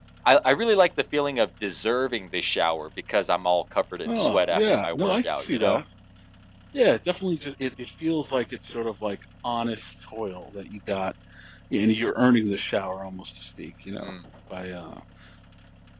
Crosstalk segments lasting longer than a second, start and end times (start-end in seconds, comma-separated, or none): 4.0-5.8